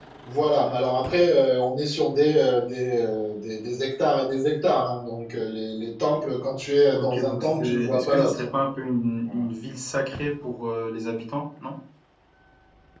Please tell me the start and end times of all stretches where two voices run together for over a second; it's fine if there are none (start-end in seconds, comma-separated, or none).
6.9-8.5